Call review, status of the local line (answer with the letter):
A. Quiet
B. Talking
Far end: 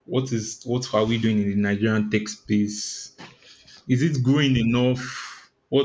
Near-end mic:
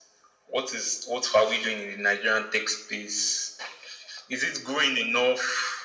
A